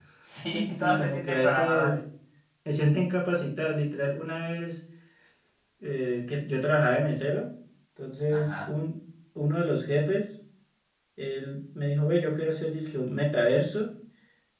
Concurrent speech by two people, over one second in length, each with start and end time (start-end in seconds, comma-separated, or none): 0.7-2.0